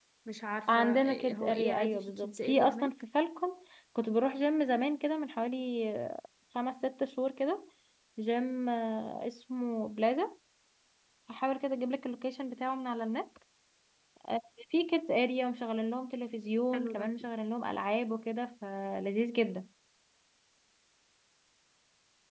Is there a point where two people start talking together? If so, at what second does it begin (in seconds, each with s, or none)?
0.7 s